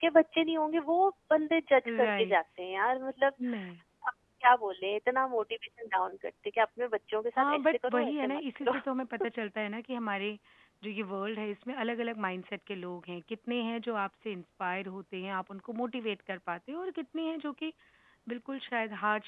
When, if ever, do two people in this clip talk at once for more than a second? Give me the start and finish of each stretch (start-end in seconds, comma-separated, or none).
7.4-8.7